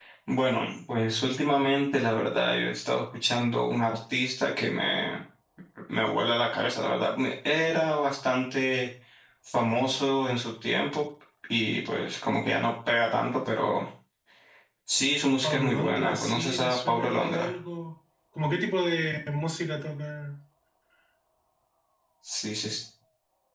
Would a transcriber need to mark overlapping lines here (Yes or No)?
Yes